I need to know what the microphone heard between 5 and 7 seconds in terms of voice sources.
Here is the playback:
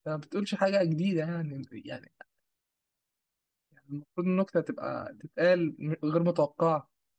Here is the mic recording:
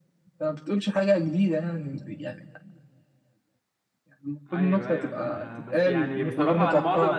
both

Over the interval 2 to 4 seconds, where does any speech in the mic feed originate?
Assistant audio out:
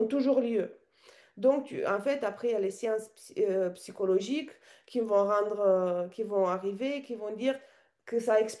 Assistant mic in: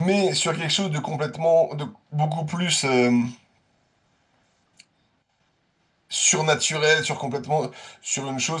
user only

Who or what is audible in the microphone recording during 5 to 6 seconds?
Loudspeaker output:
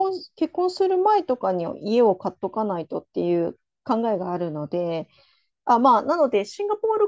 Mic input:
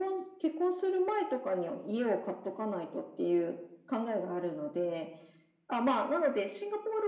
echo only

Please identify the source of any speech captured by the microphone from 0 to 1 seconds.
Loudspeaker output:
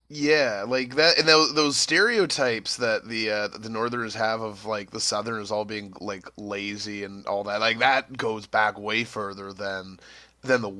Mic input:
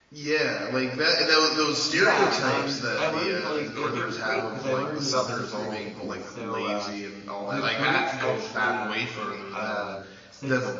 echo only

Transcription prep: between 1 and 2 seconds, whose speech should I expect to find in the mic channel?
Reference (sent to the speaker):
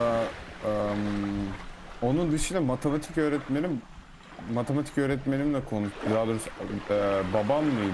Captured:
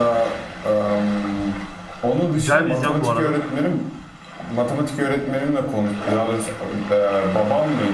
echo only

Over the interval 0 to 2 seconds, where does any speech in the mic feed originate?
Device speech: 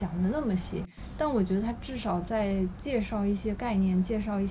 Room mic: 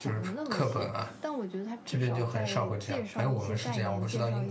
both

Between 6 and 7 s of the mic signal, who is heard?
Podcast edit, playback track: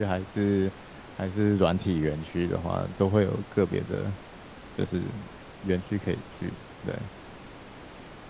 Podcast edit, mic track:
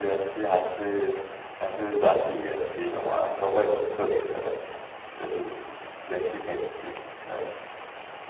echo only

